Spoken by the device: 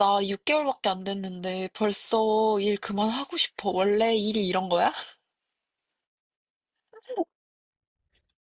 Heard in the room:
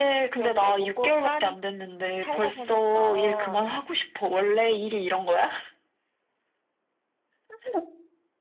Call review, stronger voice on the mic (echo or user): echo